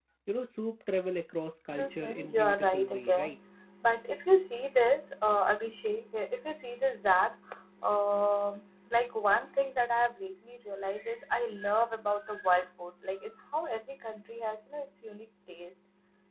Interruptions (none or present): present